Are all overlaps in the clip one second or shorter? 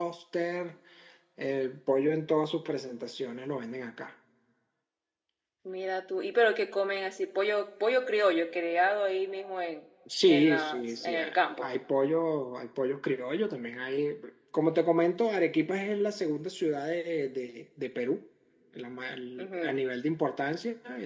No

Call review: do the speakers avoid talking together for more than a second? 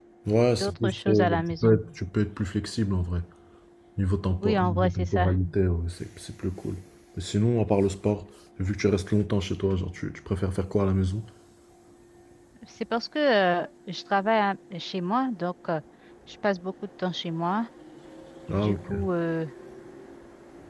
No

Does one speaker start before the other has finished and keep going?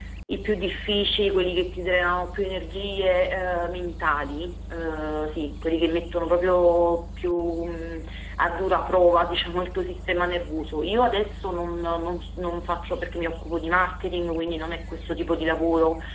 No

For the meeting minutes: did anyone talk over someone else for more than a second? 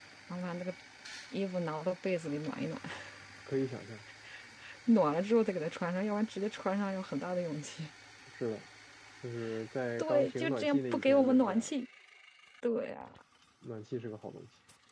Yes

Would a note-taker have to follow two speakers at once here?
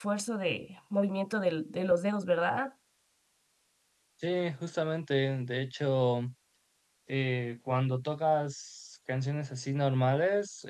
No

